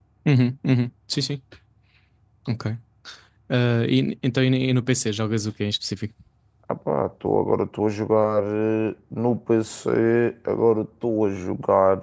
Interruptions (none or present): none